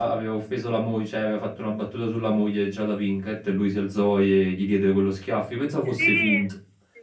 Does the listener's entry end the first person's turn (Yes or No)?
Yes